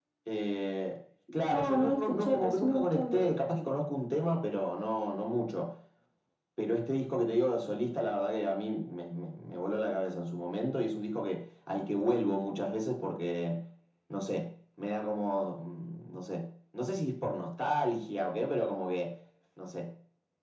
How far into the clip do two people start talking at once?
1.5 s

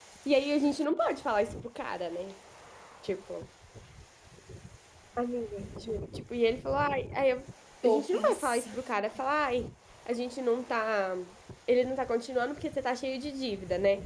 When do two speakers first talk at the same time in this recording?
7.8 s

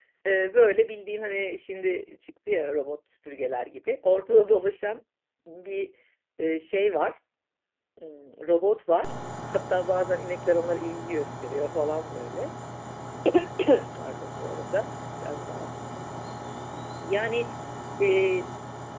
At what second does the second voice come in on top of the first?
none

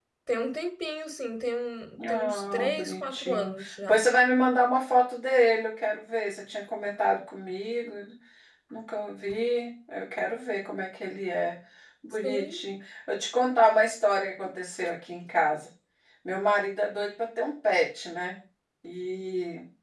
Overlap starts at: 2.1 s

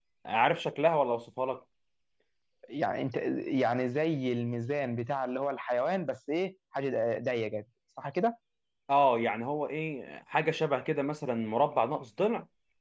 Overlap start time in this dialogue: none

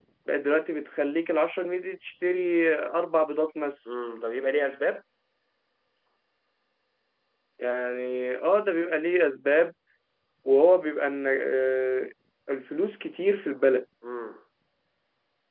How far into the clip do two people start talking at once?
none

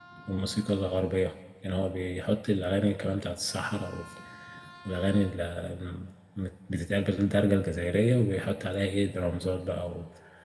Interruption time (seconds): none

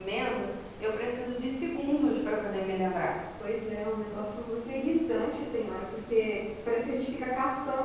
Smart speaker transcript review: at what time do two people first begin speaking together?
none

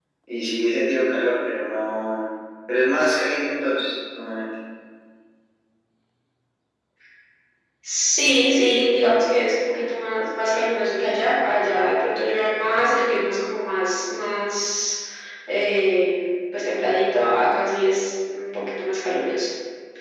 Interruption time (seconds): none

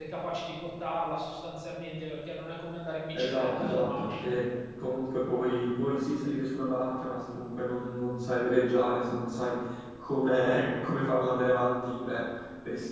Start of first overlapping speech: 3.1 s

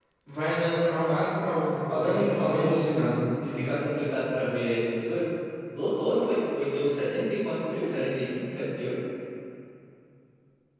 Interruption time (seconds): 1.9 s

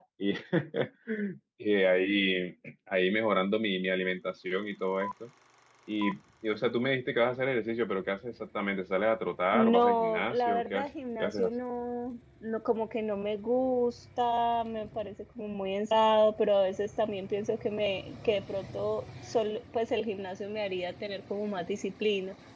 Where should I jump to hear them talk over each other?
9.5 s

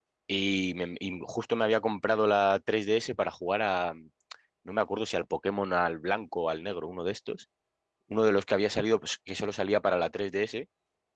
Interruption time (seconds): none

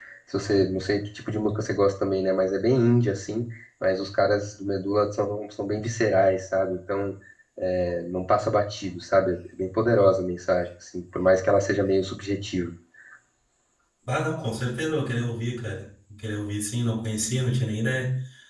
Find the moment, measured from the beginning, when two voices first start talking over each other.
none

